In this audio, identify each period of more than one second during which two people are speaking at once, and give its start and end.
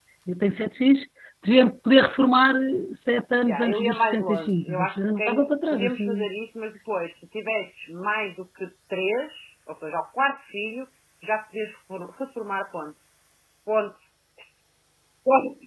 3.4-6.3

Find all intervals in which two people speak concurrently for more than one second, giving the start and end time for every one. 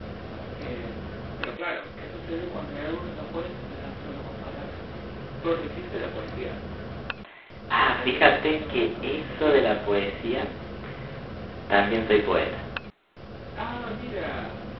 7.8-9.7

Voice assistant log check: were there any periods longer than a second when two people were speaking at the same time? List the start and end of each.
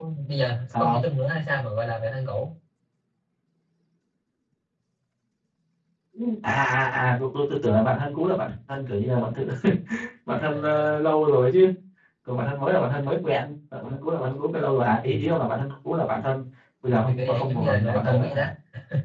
17.1-18.4

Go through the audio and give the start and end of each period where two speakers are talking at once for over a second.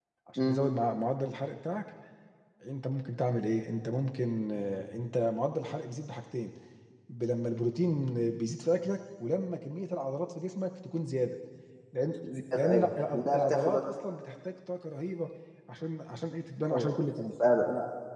12.6-13.8

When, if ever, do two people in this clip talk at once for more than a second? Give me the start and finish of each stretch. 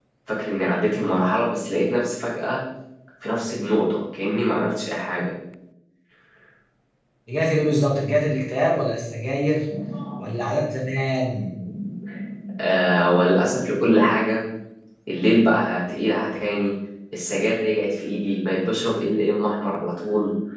none

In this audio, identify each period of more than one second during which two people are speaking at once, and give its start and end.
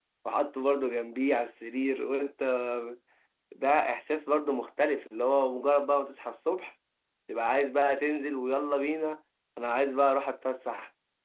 none

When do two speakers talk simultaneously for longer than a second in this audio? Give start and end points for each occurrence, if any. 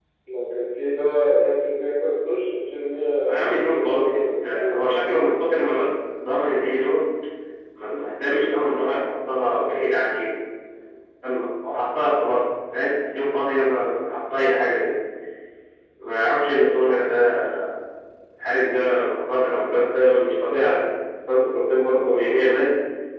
3.2-5.0

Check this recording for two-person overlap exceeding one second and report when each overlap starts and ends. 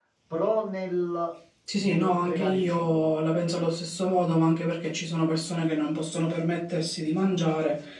1.8-3.0

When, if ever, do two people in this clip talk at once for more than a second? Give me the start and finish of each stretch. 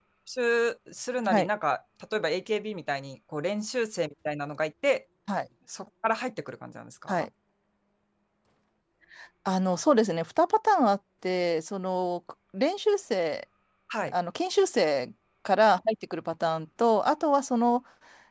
none

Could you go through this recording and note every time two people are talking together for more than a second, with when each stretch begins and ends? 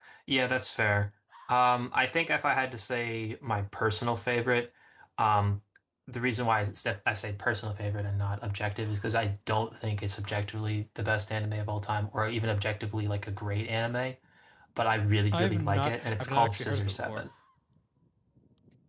15.3-17.2

